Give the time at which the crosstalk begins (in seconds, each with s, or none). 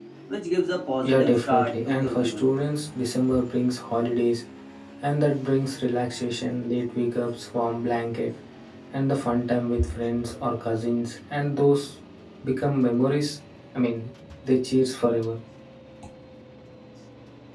1.0 s